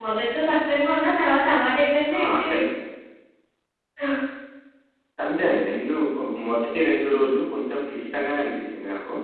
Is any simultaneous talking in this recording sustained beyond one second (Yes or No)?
No